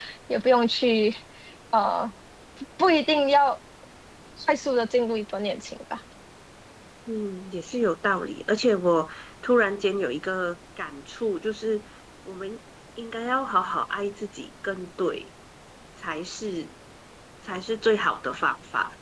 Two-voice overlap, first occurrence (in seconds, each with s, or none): none